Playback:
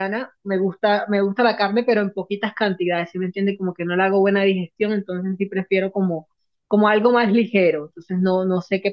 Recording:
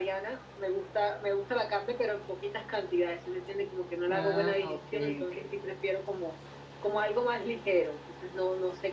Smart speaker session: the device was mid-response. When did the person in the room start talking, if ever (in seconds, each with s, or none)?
4.1 s